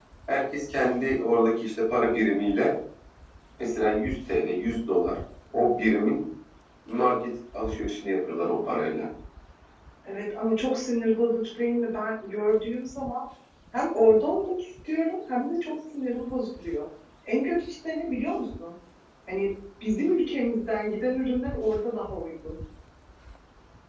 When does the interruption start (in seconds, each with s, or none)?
none